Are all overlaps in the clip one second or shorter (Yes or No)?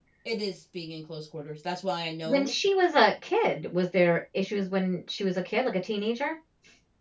Yes